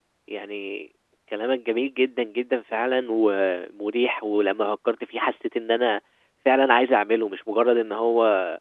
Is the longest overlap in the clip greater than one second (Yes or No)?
No